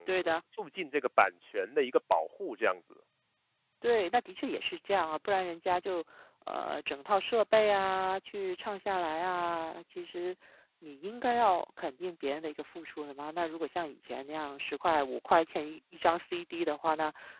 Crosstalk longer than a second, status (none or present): none